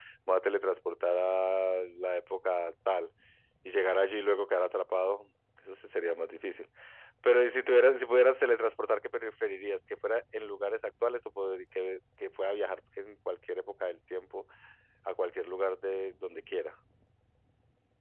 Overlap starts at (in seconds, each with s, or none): none